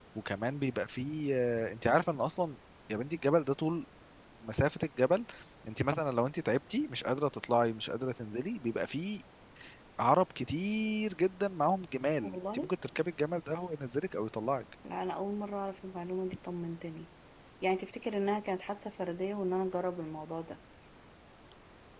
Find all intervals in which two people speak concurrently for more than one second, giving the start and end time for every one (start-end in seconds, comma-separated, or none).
none